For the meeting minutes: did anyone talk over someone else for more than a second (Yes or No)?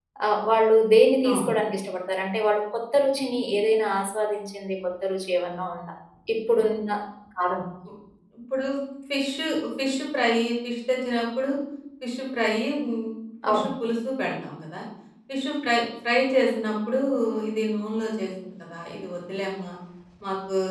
No